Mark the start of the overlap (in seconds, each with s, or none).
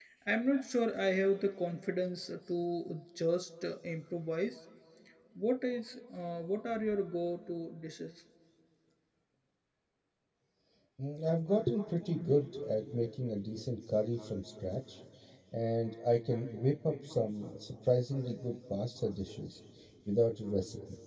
none